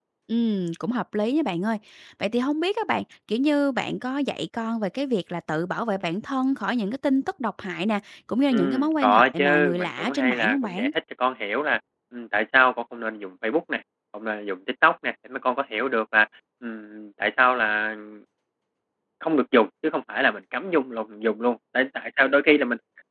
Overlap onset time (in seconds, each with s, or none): 8.5 s